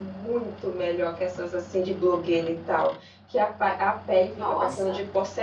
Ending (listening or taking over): listening